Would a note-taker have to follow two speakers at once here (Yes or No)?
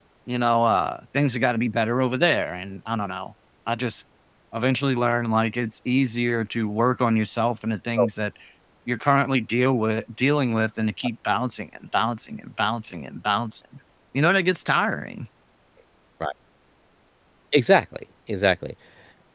No